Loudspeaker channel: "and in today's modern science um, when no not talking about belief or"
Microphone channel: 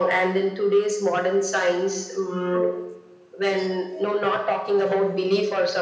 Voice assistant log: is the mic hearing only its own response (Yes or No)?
Yes